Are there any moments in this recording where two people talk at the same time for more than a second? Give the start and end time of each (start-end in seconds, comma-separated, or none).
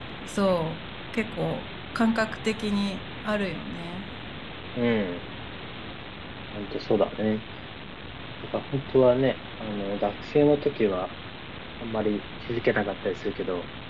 none